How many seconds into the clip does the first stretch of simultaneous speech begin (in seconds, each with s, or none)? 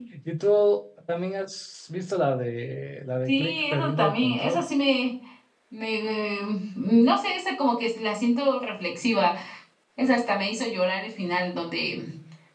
3.3 s